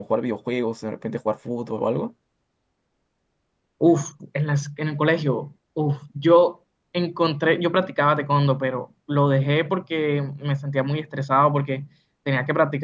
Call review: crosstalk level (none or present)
none